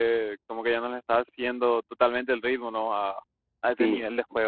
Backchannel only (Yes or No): No